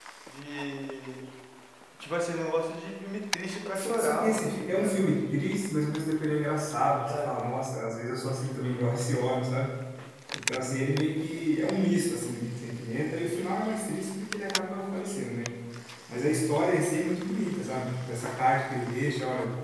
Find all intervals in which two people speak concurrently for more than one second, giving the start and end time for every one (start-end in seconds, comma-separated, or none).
3.7-5.4